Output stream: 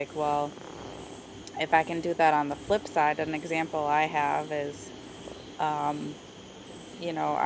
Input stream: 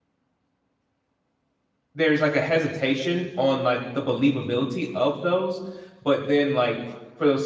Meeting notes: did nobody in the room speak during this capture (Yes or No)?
No